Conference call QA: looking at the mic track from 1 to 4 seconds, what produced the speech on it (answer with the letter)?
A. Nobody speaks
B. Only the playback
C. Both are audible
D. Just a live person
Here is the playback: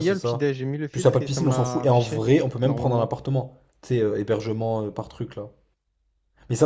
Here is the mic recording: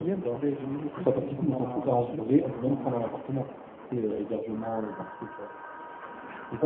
B